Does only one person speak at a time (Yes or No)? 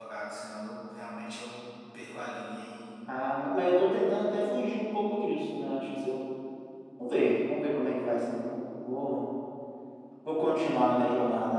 Yes